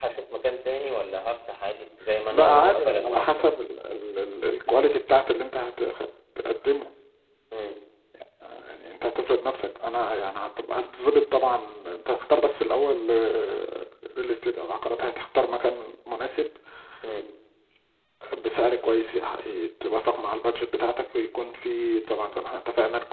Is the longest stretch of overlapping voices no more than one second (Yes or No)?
No